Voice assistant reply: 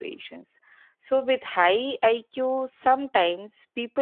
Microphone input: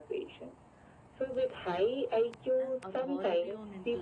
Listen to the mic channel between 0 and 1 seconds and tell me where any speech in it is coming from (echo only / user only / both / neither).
echo only